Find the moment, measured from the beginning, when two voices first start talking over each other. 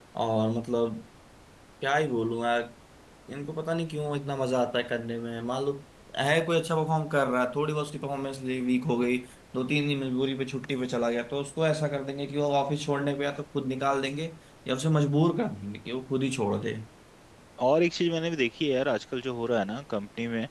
none

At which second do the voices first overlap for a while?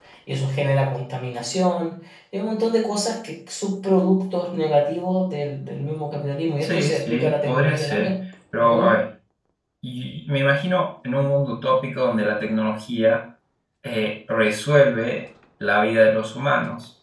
6.6 s

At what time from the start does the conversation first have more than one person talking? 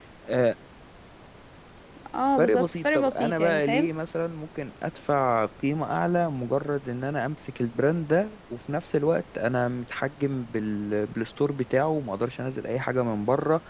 2.4 s

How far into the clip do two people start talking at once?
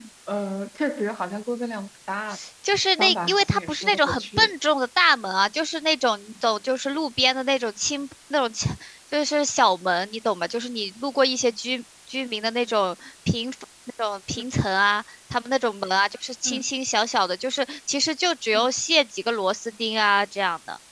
3.0 s

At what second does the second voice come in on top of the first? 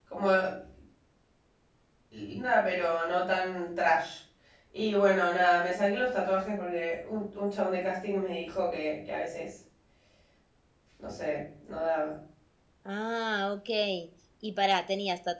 none

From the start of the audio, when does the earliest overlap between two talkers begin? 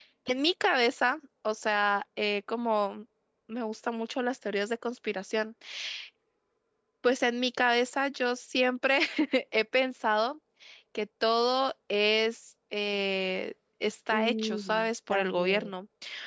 14.1 s

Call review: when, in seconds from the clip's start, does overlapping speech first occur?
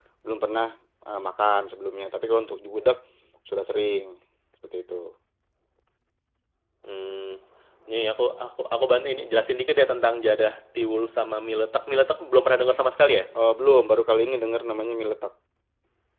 none

